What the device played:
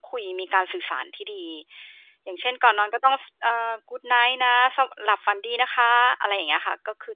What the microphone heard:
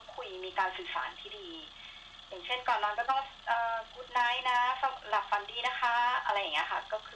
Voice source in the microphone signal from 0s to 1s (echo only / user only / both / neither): echo only